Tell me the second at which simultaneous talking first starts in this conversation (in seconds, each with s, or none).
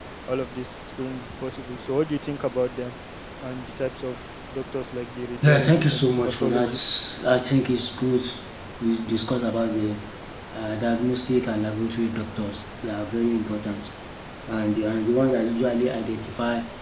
5.4 s